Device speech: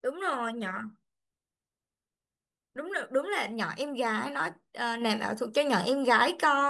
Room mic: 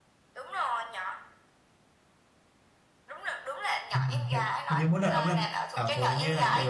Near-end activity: present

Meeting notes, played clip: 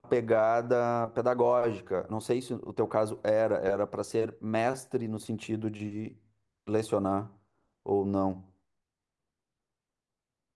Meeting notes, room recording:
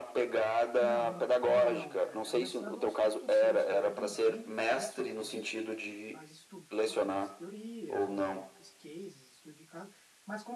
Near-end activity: present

